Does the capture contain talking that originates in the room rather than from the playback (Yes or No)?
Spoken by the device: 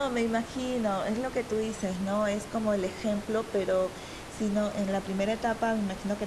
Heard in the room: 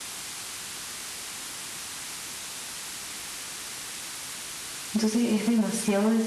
Yes